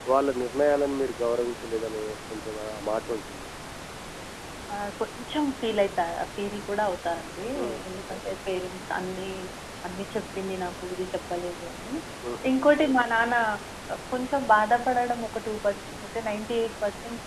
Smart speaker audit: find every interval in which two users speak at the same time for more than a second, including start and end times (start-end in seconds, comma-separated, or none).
none